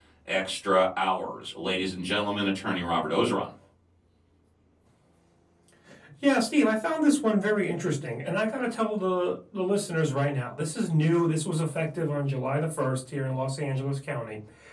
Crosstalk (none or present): none